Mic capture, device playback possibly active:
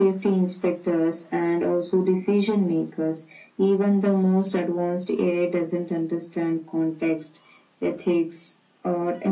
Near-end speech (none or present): none